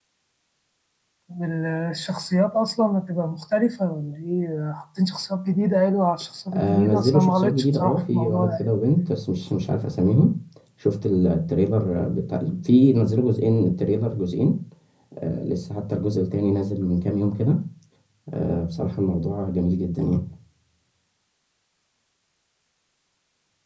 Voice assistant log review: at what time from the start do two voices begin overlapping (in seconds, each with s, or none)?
6.5 s